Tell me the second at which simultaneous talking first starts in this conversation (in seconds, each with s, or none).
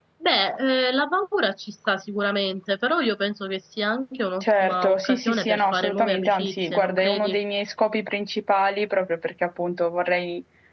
4.4 s